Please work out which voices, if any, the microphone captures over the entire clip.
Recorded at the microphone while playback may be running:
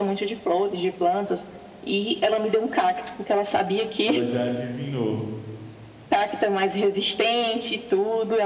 both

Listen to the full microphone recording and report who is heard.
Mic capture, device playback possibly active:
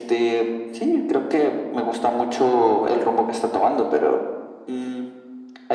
echo only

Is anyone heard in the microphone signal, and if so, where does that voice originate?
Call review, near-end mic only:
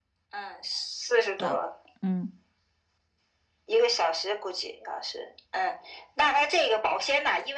both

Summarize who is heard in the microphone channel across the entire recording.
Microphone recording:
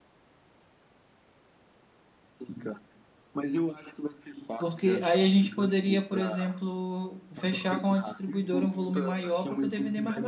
both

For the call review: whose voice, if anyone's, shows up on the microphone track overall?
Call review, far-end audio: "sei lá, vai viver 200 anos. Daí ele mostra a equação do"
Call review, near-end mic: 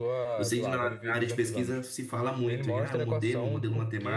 both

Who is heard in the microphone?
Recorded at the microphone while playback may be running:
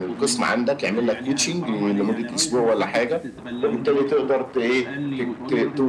both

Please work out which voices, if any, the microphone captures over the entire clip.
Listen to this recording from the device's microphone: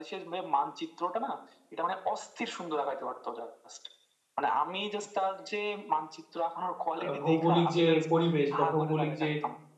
both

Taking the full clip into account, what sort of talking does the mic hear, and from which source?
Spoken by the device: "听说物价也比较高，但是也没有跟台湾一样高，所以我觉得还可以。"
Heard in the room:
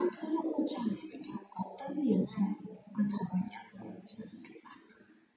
echo only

